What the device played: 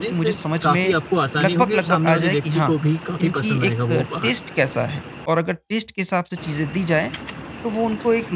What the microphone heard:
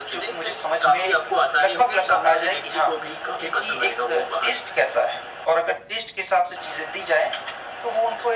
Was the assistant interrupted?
No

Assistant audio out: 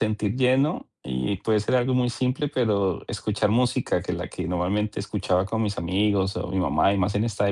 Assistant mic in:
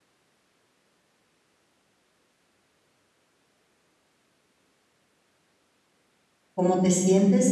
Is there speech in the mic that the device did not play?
Yes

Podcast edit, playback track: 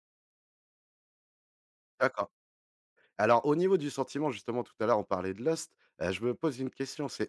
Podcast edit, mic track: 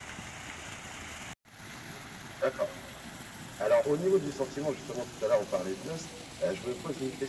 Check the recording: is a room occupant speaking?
No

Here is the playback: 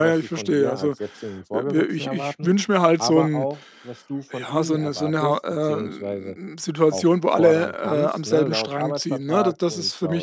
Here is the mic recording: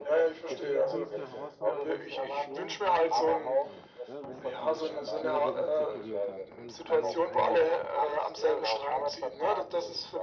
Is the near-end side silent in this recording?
No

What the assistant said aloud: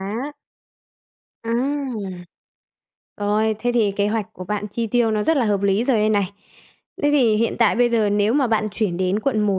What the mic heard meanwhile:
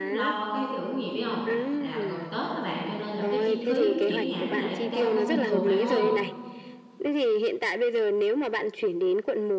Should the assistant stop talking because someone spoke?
Yes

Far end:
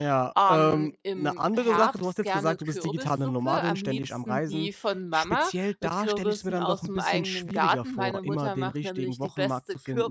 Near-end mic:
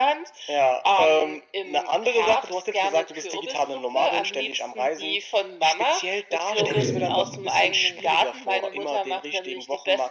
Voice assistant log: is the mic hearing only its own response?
No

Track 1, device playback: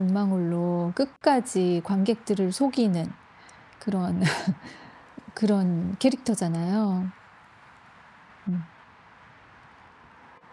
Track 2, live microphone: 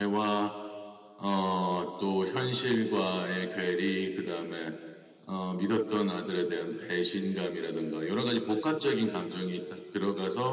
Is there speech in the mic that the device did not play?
Yes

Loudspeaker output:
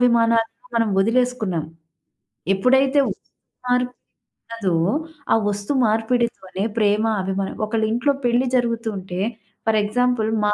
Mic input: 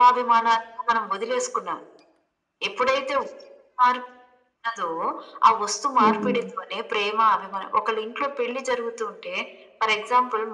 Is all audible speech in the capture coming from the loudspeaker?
No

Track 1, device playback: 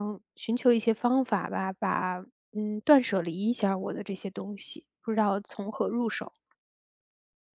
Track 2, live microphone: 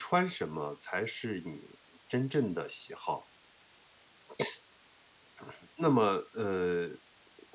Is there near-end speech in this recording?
Yes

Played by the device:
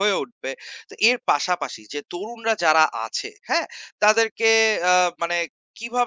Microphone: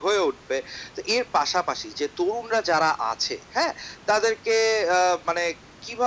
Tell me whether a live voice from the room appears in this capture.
No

